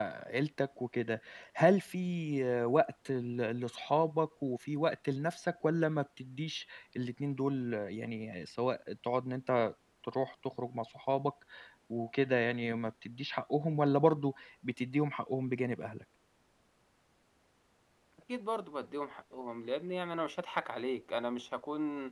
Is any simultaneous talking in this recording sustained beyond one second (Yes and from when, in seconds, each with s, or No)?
No